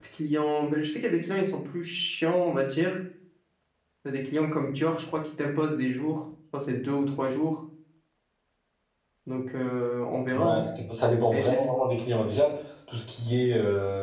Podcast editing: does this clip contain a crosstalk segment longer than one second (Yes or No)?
No